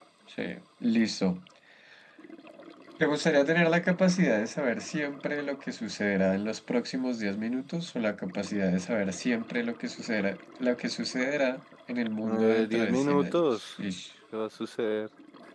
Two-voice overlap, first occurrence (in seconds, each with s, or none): 12.2 s